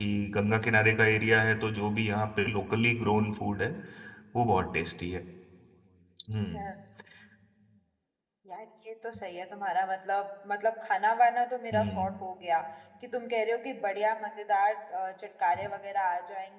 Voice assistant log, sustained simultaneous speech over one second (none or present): none